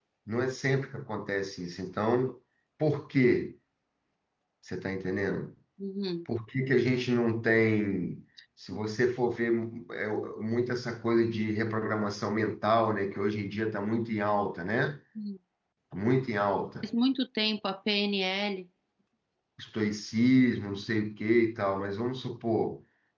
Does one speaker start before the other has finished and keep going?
No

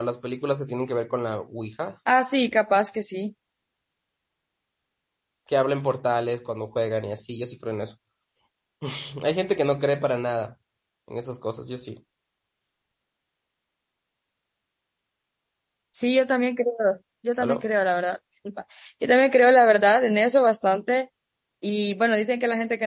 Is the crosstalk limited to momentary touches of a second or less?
Yes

